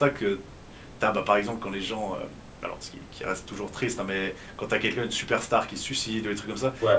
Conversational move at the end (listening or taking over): listening